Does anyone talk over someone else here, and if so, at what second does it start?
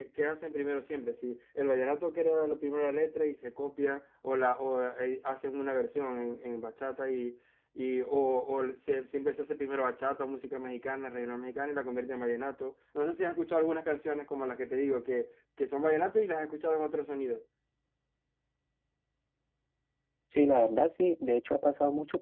none

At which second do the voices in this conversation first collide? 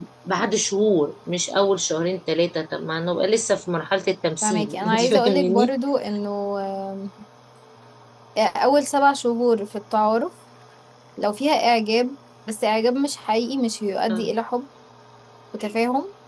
4.4 s

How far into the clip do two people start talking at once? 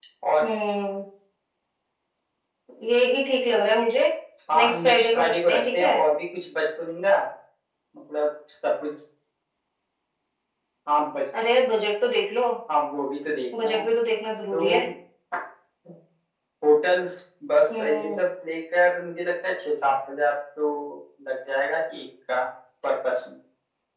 4.5 s

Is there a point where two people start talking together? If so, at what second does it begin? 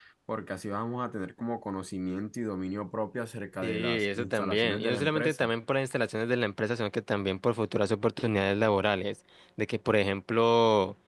3.6 s

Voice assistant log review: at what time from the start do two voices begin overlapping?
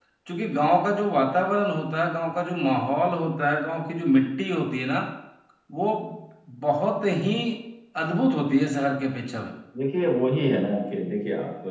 none

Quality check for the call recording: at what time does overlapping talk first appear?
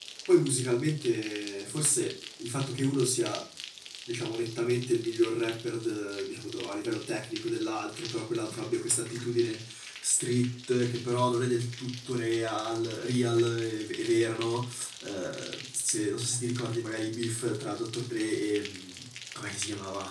none

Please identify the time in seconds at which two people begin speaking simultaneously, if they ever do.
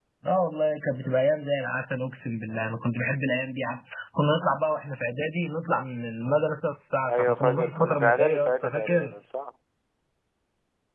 7.0 s

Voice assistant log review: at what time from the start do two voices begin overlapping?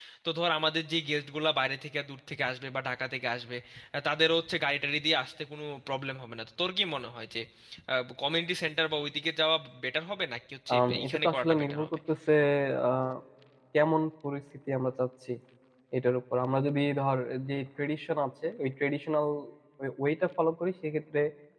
10.7 s

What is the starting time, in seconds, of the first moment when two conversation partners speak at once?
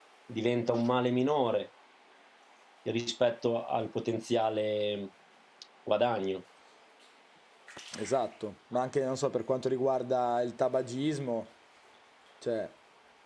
none

